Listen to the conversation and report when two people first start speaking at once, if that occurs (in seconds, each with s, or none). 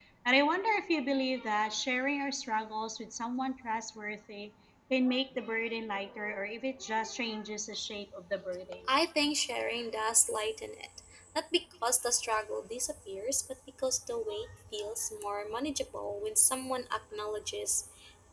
none